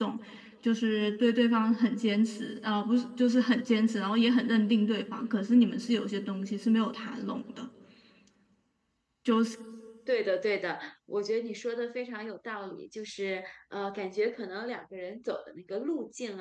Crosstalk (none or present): none